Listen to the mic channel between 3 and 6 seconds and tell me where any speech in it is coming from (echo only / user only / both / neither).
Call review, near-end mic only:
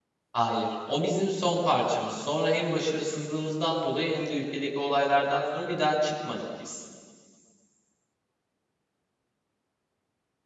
user only